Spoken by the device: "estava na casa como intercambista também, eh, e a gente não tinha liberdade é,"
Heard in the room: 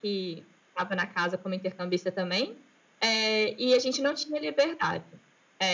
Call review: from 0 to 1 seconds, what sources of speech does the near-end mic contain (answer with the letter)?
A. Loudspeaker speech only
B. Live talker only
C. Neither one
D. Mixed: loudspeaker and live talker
A